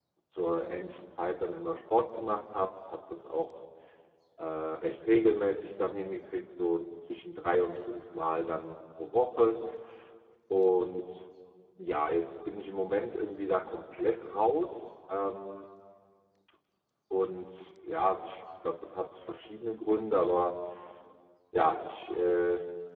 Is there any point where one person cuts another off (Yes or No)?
No